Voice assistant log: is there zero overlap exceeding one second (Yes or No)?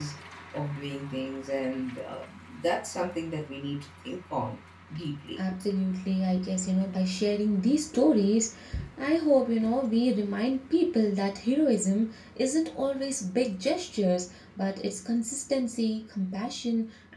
Yes